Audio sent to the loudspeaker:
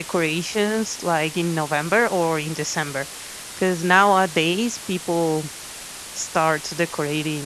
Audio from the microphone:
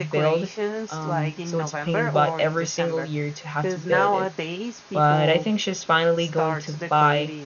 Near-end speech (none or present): present